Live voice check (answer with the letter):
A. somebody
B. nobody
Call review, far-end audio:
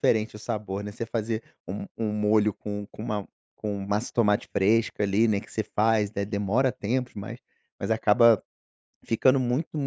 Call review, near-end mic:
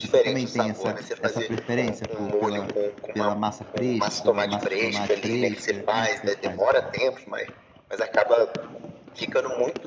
A